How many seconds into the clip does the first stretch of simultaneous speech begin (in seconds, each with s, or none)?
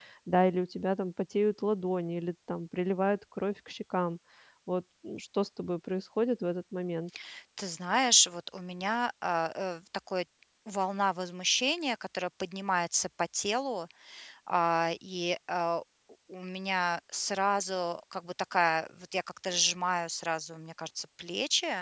none